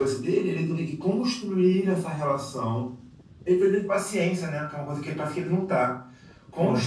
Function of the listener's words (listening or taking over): listening